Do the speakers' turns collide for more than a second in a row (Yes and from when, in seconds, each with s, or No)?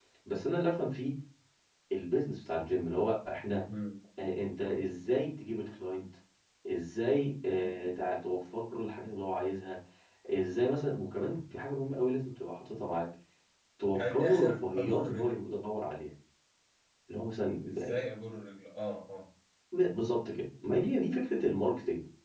Yes, from 13.9 s